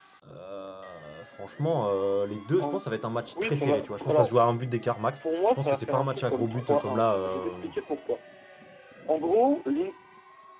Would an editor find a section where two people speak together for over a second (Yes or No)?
Yes